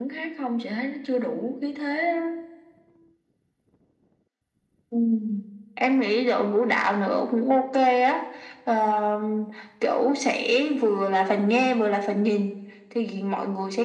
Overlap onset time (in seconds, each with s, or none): none